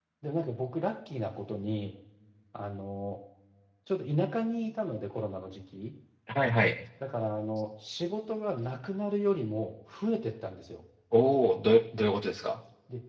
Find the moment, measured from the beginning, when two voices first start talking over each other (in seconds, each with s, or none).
none